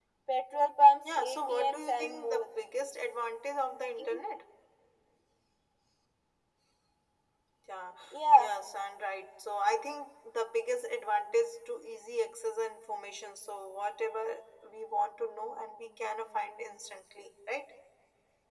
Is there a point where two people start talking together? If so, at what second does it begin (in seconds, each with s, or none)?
1.0 s